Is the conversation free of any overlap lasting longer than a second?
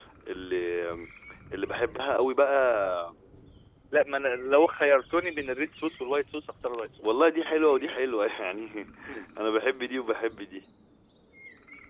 Yes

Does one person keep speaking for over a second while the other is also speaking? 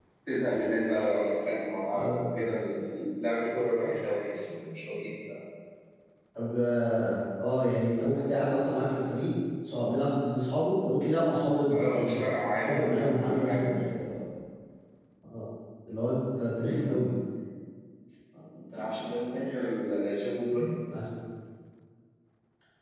Yes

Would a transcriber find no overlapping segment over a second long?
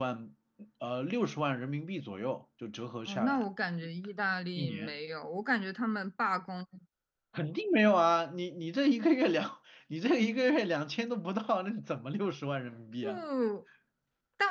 Yes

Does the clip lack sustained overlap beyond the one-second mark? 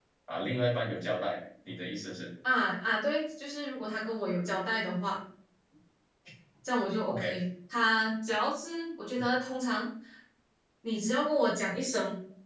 Yes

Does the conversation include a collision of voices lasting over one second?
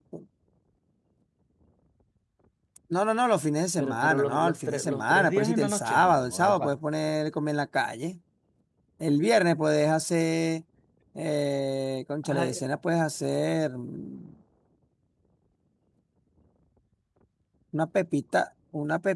Yes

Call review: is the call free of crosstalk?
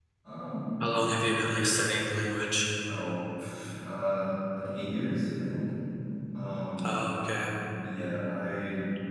Yes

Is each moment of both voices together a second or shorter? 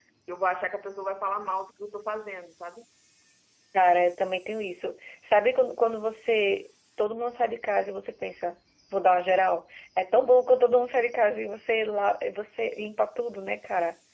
Yes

